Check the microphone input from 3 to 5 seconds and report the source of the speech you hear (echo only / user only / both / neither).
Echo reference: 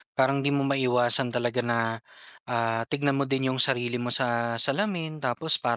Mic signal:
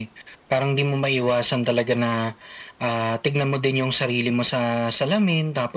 echo only